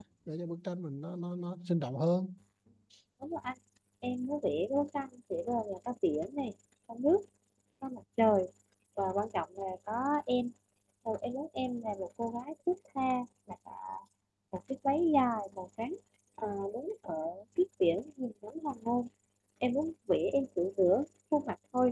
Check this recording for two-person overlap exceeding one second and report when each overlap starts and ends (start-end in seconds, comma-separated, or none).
none